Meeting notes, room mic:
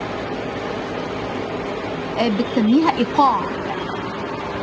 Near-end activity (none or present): present